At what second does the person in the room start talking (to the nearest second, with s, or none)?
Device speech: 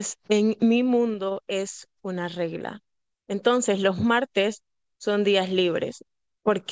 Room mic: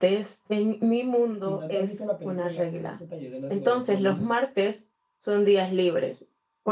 1 s